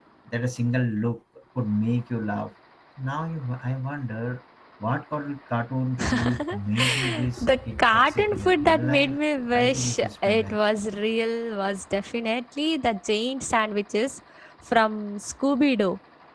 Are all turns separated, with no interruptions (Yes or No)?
No